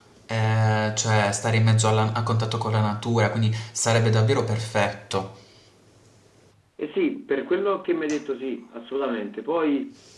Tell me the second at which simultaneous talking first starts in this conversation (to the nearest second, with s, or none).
none